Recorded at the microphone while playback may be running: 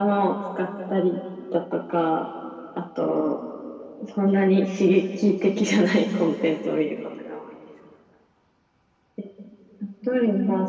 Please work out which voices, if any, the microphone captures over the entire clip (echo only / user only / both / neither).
echo only